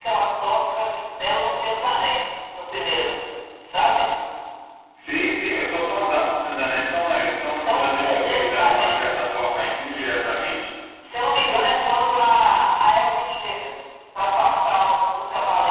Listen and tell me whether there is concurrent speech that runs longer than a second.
Yes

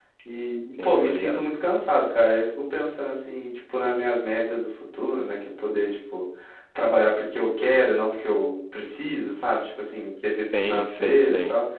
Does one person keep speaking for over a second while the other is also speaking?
Yes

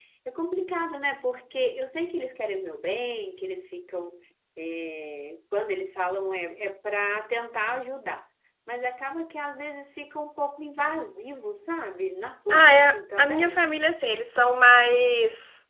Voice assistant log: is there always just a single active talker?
No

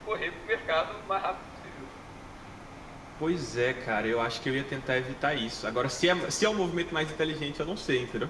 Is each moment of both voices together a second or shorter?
Yes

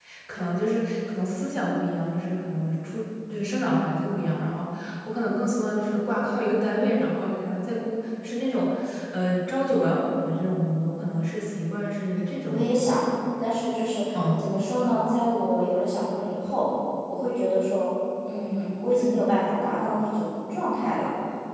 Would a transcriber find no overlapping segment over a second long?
Yes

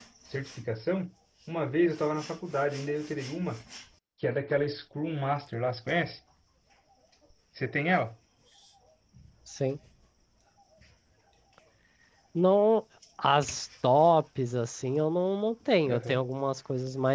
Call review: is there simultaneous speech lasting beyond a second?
No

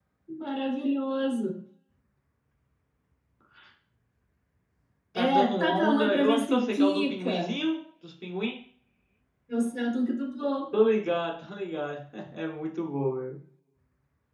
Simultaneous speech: Yes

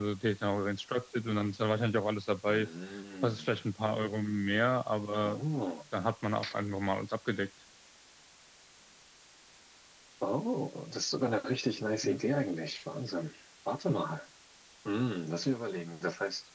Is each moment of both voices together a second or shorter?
Yes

